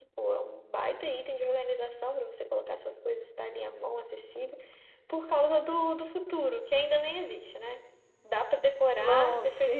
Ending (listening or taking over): taking over